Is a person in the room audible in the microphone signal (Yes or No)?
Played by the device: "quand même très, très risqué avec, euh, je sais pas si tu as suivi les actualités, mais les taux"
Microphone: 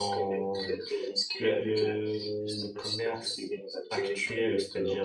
Yes